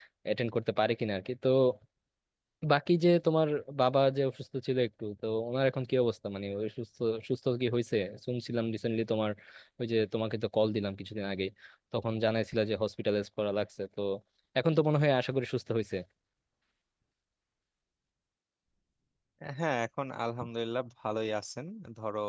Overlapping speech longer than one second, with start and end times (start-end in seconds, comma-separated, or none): none